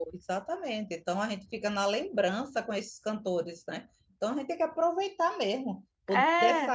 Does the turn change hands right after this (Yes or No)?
No